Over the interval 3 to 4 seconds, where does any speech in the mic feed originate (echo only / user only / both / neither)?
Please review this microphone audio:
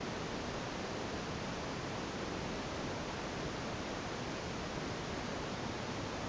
neither